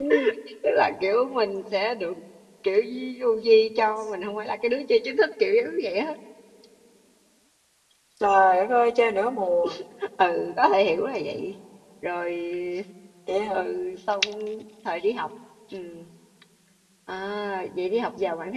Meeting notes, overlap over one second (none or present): none